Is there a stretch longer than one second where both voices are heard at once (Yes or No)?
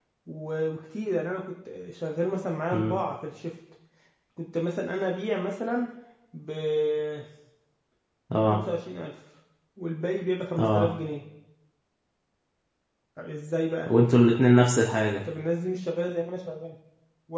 No